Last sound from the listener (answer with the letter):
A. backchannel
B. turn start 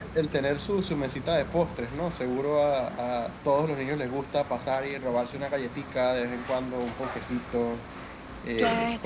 A